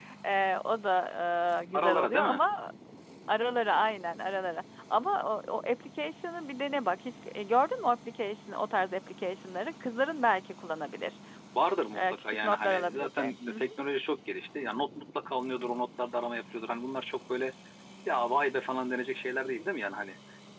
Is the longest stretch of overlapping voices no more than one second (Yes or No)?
No